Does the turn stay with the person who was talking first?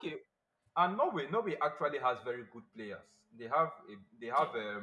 Yes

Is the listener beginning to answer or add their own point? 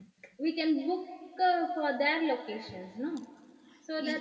No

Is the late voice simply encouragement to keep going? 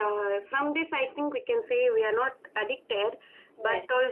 Yes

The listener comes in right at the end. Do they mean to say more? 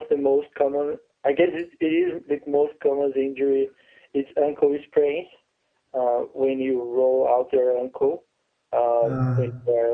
No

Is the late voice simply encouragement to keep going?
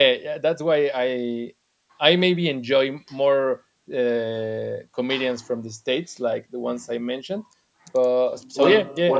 No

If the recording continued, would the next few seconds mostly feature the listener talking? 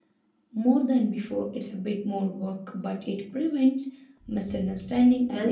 Yes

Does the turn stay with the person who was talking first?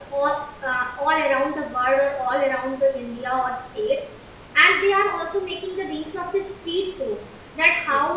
Yes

